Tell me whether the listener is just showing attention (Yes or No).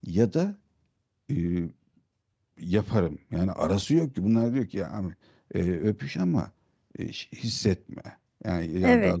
No